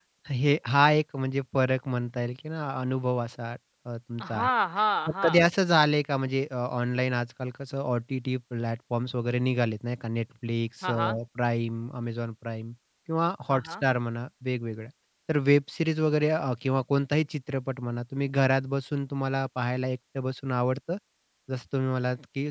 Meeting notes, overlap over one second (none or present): none